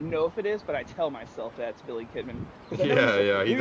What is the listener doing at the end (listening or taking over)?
taking over